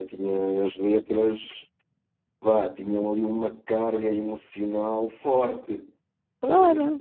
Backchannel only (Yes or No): No